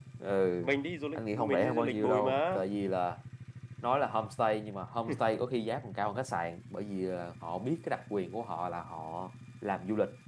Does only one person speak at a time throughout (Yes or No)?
No